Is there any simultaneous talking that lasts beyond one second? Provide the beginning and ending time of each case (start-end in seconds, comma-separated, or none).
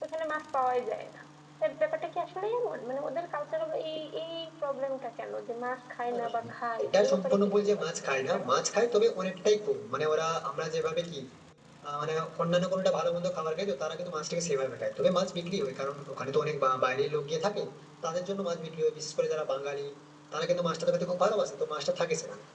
6.8-8.7